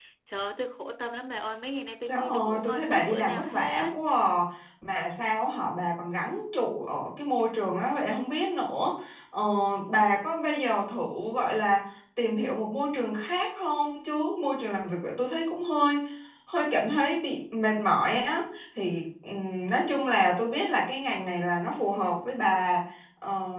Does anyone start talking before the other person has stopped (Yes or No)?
Yes